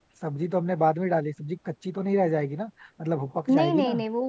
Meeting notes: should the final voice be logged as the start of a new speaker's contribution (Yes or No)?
Yes